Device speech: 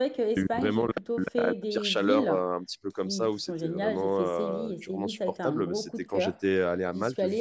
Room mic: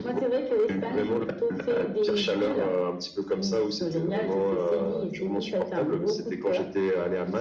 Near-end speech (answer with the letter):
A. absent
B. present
A